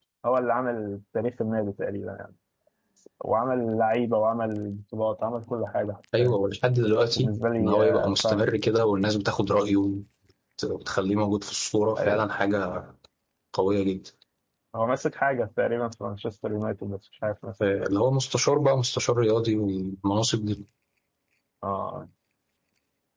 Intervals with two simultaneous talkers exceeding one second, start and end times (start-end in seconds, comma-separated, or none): 7.1-8.5